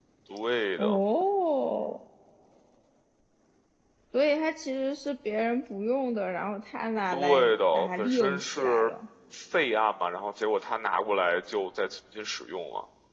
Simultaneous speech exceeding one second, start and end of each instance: 7.1-8.9

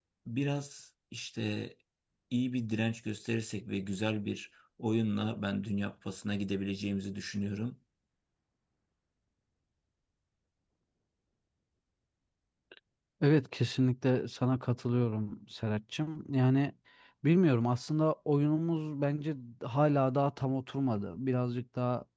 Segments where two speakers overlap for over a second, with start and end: none

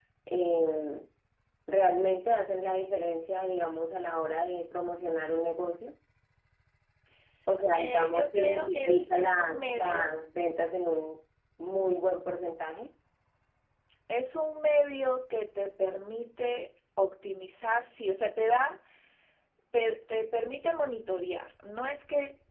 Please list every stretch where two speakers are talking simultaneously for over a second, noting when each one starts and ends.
7.7-10.2

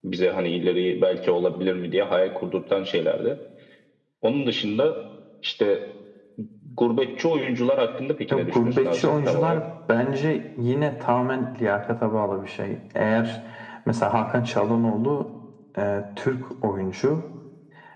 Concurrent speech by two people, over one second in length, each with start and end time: 8.3-9.6

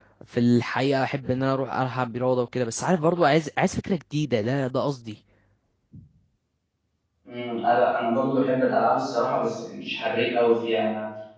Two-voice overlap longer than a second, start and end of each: none

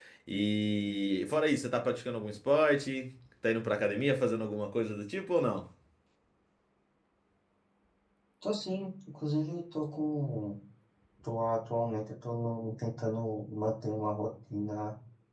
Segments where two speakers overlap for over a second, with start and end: none

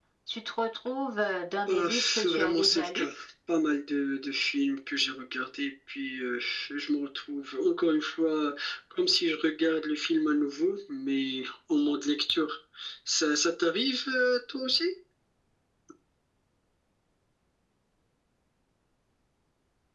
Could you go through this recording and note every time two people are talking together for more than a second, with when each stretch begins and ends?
1.7-3.0

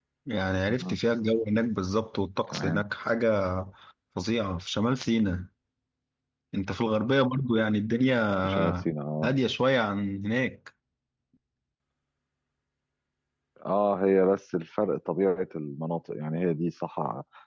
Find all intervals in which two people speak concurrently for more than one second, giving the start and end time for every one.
none

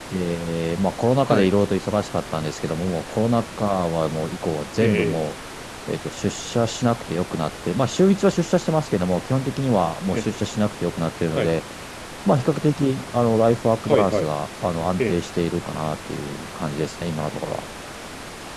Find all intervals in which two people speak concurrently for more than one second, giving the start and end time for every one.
none

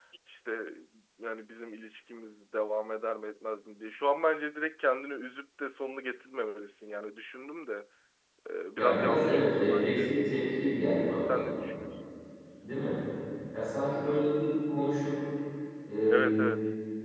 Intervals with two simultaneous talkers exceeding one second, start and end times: 8.8-10.1

